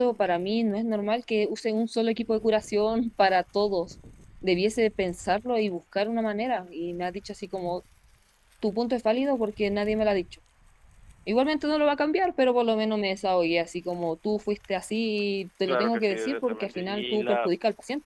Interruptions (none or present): present